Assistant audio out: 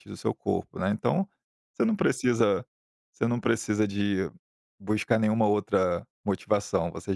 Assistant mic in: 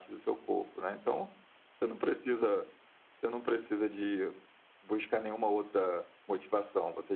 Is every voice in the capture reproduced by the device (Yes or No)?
Yes